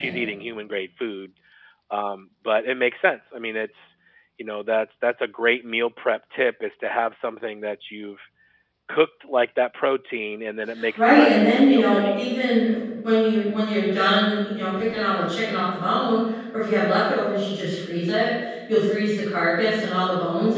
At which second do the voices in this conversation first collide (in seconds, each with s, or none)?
10.7 s